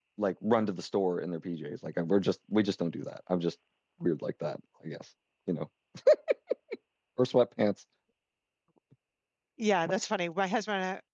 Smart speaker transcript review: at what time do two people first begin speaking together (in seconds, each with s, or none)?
none